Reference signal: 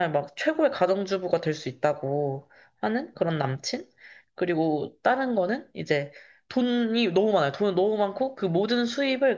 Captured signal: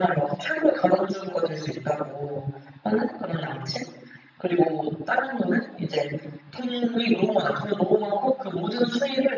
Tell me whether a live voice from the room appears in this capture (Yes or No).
No